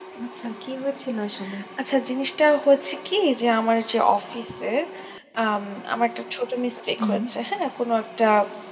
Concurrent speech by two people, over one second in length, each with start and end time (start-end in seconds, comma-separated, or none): none